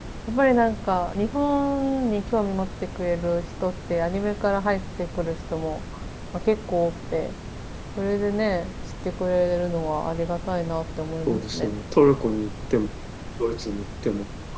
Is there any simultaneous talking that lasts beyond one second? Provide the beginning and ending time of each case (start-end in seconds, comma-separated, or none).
none